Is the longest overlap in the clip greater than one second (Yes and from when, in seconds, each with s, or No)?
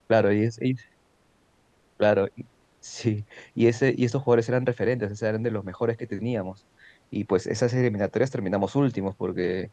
No